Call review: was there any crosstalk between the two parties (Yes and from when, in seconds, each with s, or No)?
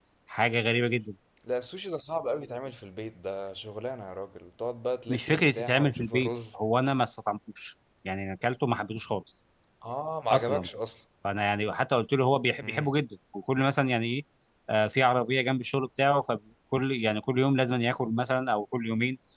Yes, from 5.1 s